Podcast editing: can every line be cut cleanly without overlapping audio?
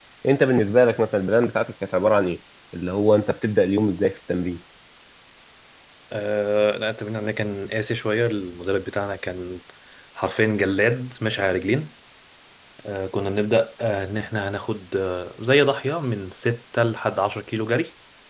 Yes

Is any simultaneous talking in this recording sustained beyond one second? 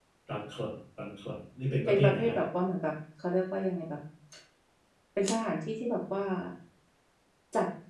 No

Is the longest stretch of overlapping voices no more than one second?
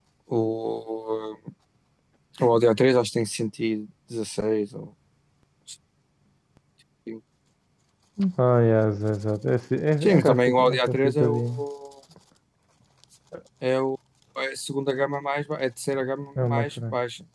No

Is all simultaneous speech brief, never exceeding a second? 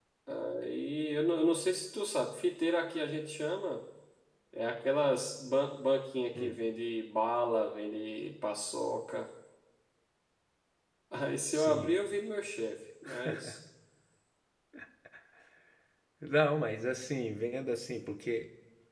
Yes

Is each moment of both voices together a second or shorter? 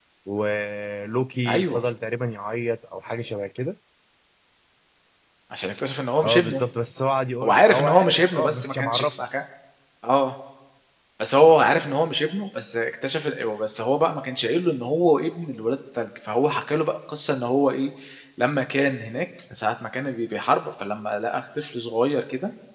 No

